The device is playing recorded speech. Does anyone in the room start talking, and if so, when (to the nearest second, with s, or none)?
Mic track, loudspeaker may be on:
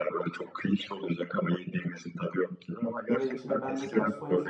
3 s